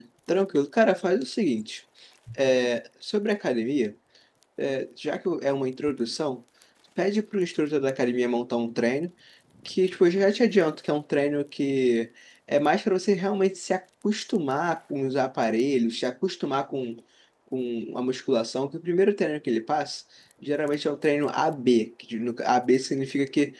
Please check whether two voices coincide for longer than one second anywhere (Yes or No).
No